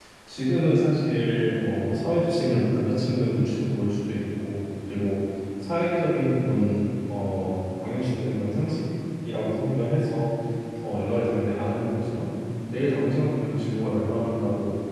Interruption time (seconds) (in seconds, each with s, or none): none